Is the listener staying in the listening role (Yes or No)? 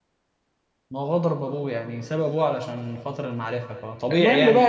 No